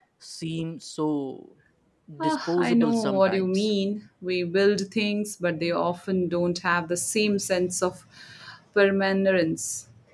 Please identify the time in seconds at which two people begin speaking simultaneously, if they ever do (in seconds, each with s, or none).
2.2 s